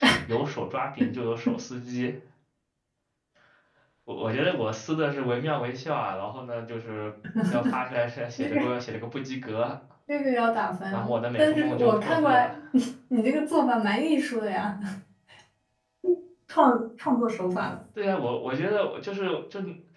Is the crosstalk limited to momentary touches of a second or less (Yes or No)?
No